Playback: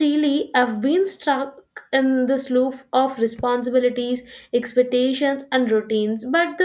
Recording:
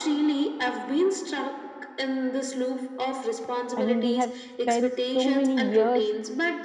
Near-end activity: present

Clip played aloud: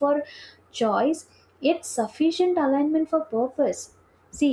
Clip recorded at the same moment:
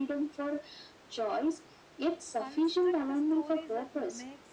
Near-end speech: present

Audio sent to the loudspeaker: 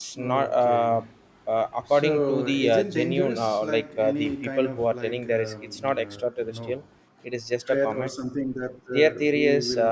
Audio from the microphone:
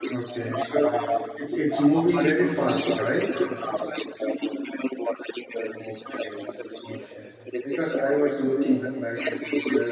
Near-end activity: present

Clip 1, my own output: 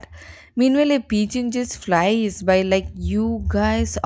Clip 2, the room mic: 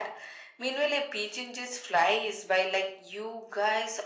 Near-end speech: none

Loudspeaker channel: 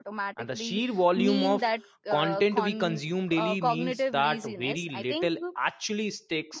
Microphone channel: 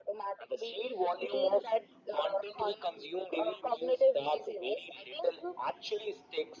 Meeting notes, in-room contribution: none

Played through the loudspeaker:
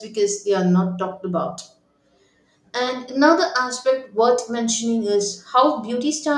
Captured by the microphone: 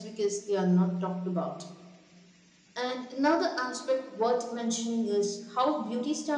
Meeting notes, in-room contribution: none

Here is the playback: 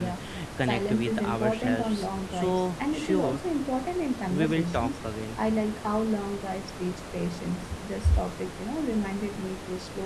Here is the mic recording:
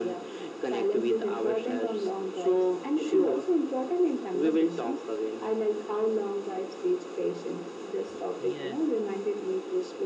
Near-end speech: present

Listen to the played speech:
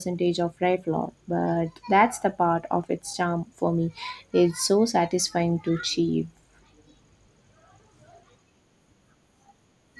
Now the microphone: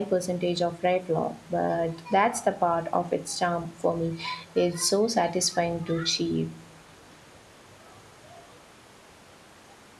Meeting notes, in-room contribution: none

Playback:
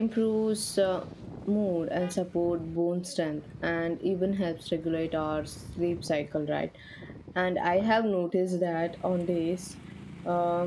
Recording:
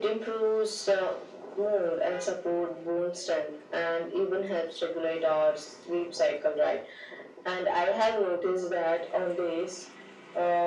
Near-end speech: none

